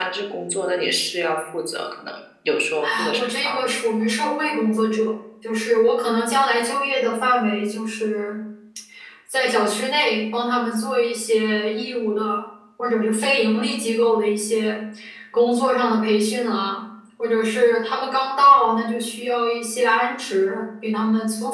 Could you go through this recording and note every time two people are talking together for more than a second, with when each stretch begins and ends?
2.9-4.1

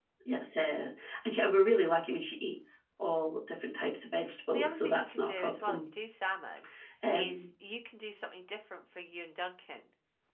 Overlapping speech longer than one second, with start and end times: 4.5-5.8

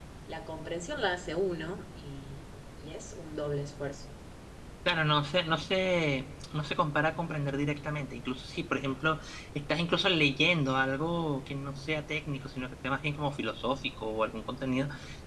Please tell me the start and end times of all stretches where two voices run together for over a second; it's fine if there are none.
none

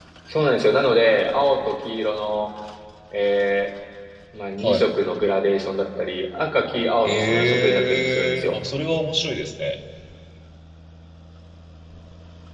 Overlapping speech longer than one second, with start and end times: 7.0-8.6

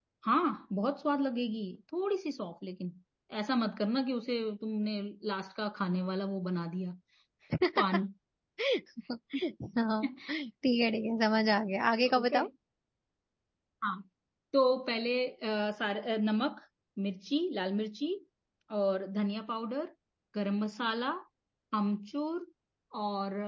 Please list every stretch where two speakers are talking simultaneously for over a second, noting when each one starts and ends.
none

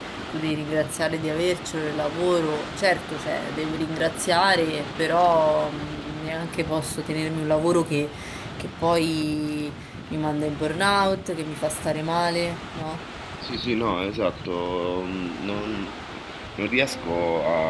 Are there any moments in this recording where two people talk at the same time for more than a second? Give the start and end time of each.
none

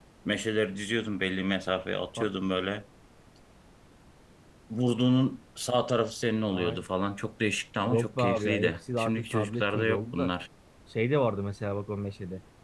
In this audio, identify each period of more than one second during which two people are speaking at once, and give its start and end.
7.9-10.3

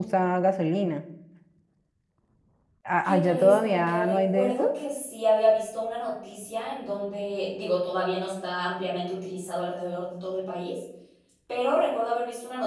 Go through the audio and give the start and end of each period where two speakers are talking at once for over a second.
3.0-4.7

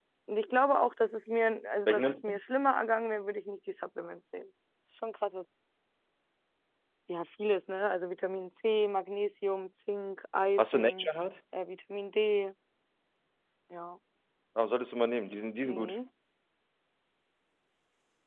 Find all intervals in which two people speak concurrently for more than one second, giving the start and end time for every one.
none

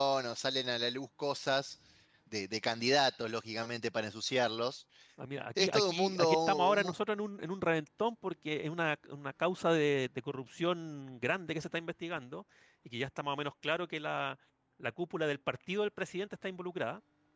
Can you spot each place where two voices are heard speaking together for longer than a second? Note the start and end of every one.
5.6-6.9

